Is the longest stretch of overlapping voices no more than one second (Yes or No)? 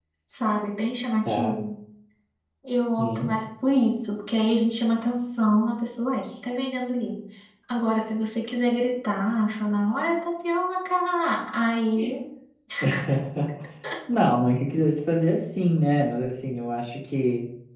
Yes